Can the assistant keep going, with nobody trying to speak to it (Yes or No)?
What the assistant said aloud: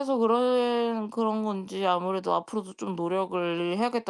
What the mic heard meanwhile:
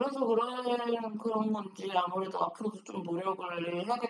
Yes